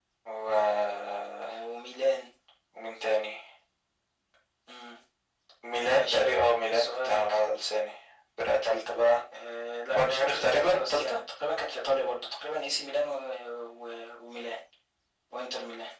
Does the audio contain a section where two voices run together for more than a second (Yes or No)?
Yes